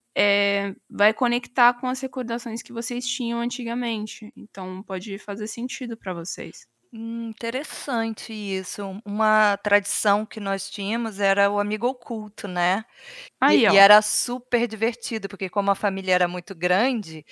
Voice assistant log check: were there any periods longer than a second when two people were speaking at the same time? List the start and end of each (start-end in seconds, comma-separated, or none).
none